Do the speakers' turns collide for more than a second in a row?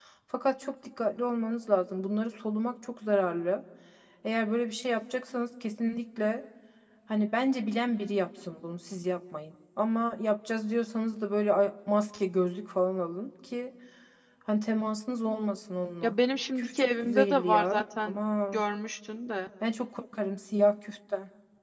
Yes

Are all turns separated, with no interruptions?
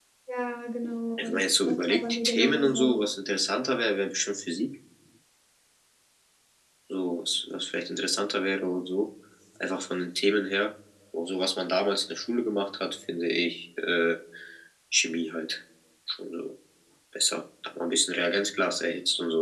No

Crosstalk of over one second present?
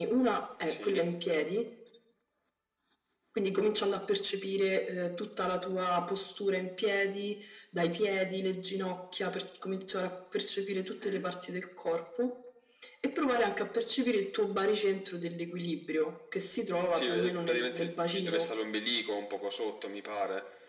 Yes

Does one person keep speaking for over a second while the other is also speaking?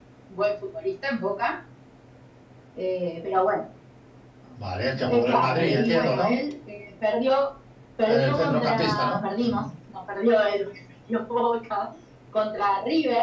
Yes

